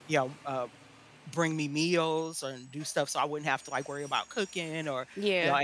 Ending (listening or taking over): listening